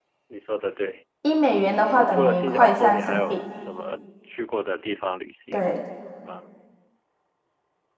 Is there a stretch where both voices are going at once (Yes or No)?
Yes